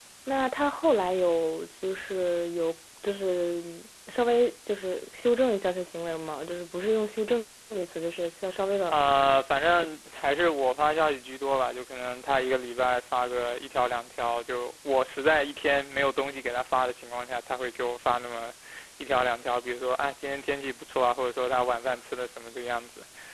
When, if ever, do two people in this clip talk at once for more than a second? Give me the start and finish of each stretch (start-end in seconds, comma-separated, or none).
none